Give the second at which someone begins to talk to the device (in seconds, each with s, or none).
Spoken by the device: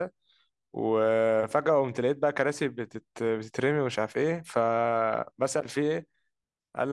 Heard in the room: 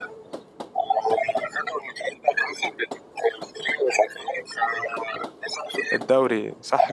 5.9 s